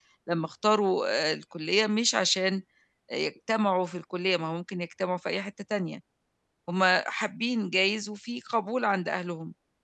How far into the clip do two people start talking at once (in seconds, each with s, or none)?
none